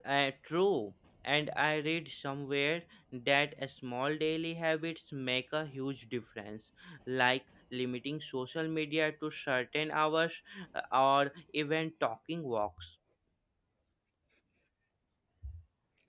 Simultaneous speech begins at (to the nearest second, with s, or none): none